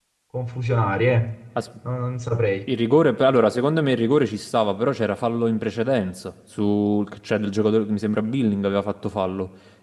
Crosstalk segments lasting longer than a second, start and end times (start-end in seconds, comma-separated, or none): none